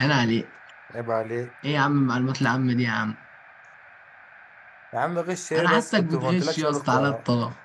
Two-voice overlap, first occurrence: 6 s

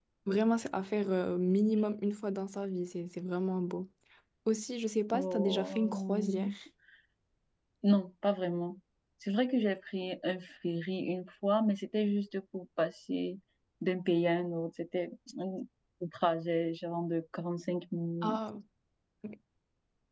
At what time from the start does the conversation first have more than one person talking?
5 s

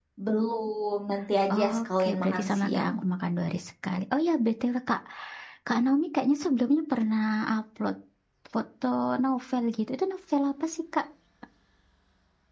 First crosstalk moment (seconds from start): 2 s

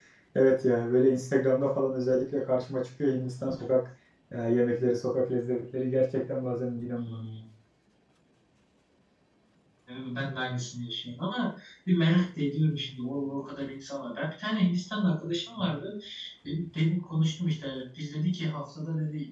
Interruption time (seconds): none

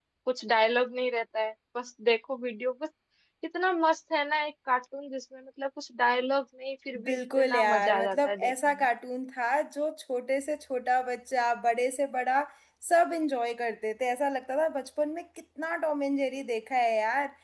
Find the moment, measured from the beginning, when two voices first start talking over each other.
7 s

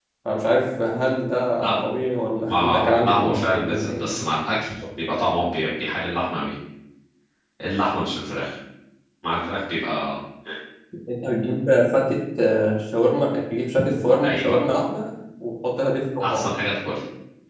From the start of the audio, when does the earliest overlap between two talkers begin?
2 s

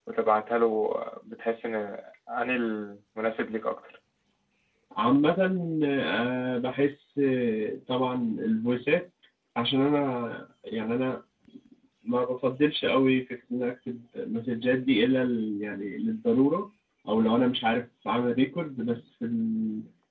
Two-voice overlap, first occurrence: none

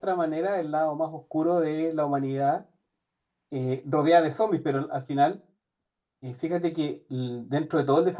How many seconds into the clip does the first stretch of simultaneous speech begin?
none

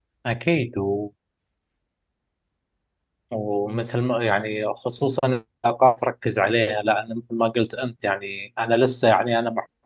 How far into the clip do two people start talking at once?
none

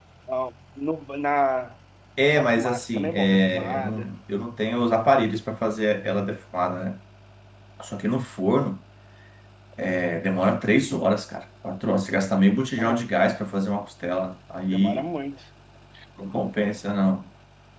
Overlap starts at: 2 s

